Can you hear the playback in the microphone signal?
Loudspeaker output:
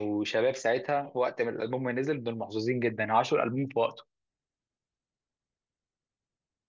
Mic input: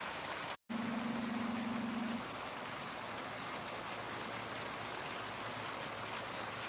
No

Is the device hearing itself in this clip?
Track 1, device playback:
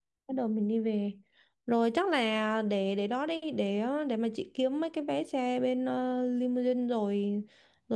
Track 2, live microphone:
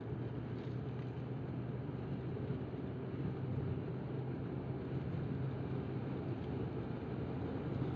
No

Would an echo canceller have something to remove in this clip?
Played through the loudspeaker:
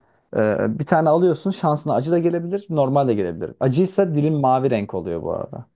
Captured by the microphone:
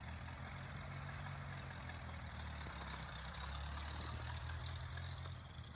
No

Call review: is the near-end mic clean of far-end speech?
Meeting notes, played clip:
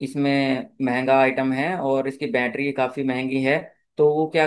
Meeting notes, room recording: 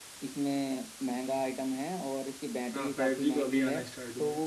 No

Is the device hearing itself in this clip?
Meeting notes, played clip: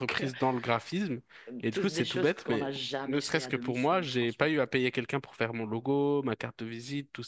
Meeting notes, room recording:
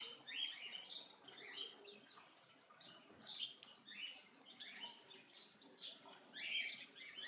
No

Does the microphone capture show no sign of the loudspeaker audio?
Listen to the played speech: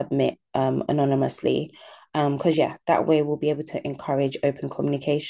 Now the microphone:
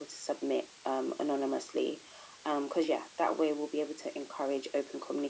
No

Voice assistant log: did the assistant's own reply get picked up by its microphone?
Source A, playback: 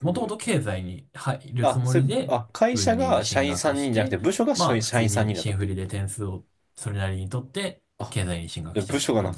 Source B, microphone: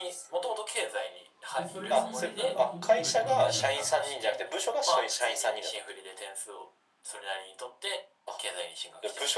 Yes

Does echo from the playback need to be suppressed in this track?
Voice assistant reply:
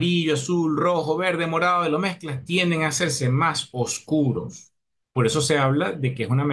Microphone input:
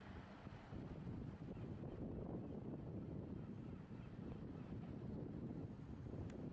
No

